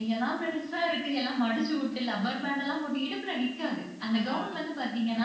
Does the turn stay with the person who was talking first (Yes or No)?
Yes